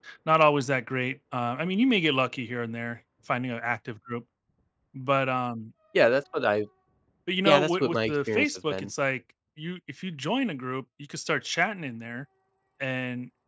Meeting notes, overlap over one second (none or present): present